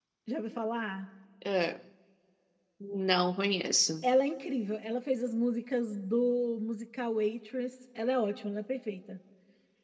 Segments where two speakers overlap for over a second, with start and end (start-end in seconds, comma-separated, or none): none